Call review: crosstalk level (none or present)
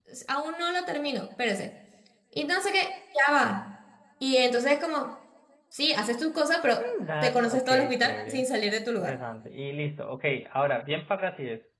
present